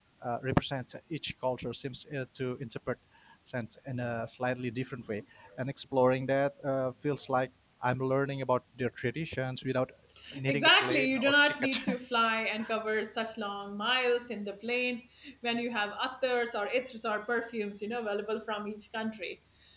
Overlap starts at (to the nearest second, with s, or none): 10 s